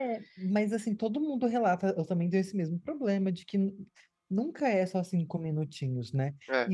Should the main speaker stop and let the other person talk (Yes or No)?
No